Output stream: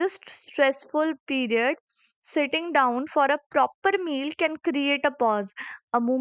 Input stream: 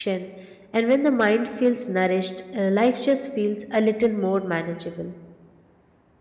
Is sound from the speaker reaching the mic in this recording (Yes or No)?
No